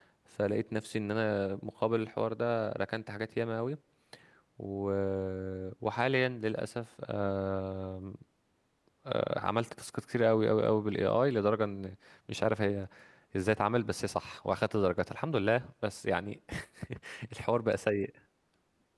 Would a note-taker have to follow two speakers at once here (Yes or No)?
No